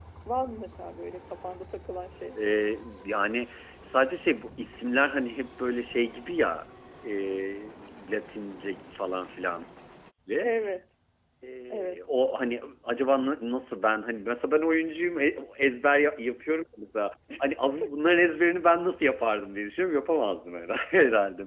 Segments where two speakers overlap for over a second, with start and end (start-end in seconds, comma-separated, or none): none